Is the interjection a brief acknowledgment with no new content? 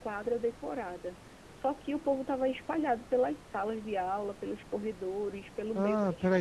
No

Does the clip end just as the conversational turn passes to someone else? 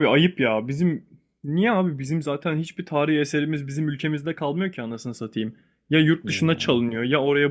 No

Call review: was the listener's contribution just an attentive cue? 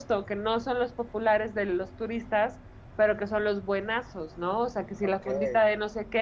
Yes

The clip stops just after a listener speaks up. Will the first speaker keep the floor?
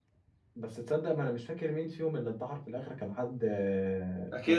No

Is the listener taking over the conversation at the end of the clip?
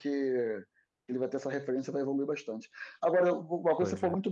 No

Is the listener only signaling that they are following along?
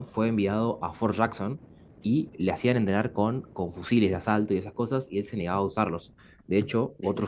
Yes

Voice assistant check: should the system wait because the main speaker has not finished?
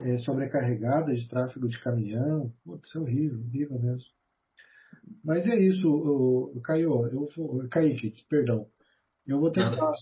Yes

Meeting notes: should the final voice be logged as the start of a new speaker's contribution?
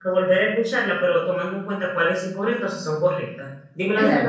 Yes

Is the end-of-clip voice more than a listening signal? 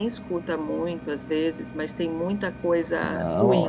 Yes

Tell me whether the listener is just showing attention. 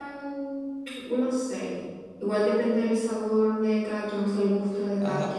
No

